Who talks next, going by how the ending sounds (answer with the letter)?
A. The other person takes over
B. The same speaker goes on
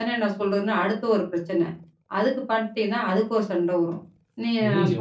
B